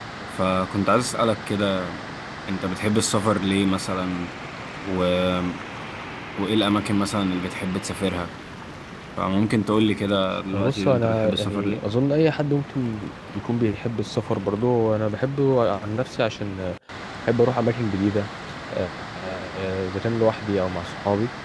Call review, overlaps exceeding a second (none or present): present